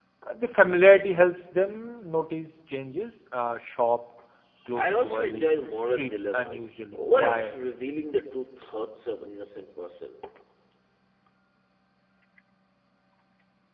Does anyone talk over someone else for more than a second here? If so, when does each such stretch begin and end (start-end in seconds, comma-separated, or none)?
4.8-7.6